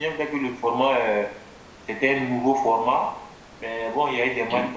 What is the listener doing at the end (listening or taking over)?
listening